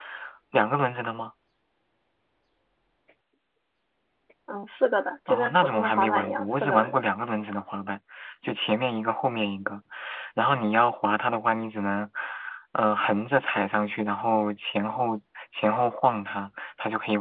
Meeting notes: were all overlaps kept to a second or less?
No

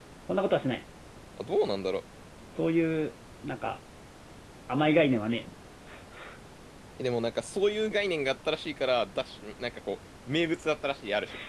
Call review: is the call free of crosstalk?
Yes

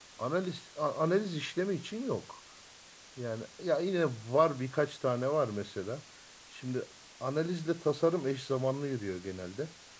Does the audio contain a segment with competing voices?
No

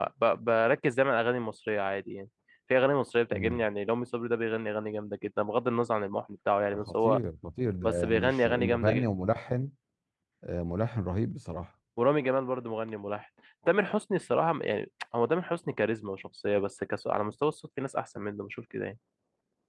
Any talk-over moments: Yes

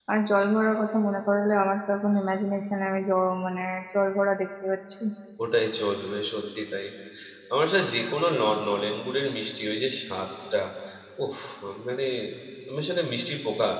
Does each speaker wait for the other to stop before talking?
Yes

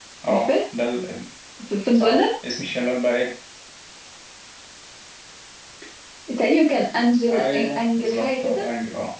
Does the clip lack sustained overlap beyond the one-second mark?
No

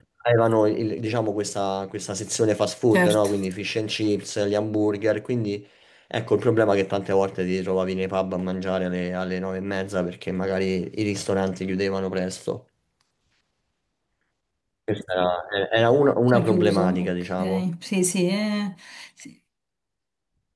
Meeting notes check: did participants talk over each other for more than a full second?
Yes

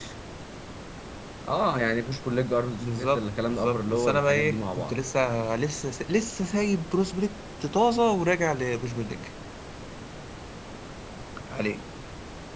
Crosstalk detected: Yes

